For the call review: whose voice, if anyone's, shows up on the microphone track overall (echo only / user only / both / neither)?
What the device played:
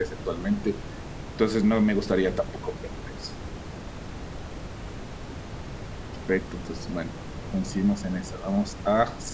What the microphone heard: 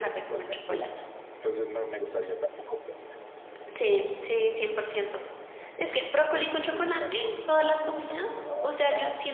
both